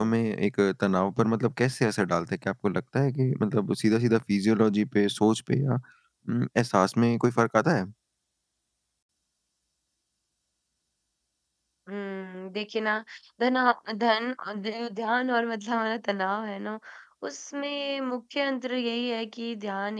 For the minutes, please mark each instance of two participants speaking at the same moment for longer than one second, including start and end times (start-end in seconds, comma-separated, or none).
none